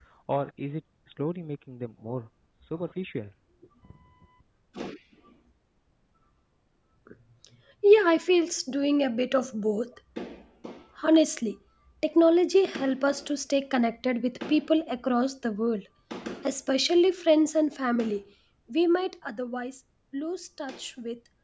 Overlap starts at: none

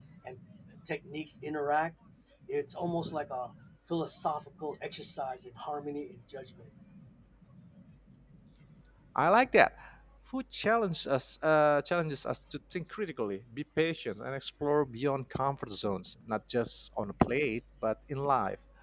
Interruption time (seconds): none

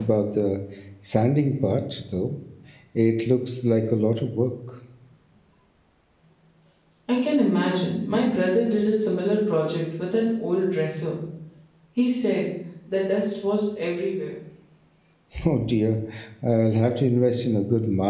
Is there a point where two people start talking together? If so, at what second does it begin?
none

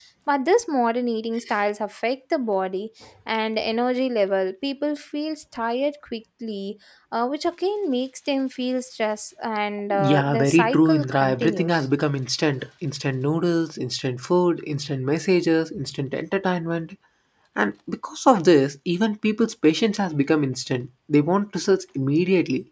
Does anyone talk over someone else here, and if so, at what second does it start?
9.9 s

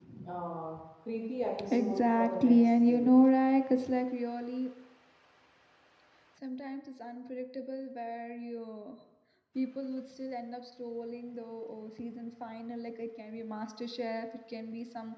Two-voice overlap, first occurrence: 1.6 s

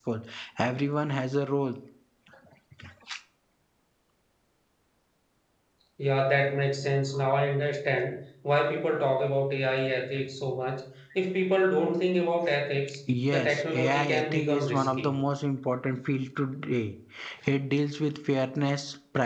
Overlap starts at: 13.3 s

